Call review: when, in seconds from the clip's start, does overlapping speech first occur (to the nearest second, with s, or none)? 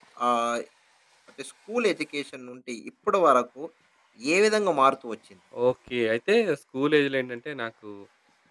none